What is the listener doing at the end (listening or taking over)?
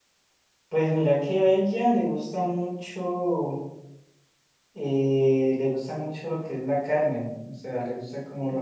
listening